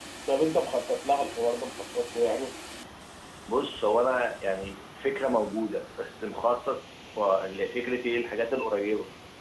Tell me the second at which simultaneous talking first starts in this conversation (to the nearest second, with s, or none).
none